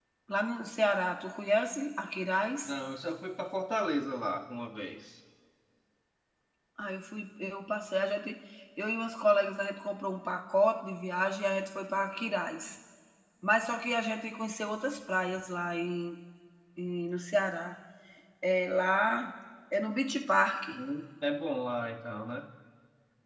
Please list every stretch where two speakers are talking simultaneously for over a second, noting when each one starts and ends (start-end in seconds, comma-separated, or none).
none